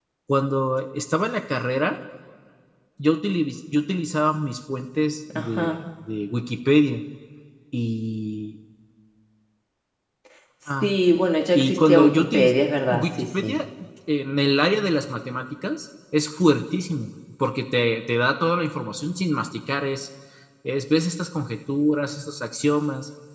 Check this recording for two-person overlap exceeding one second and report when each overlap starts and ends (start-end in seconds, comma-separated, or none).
11.5-13.6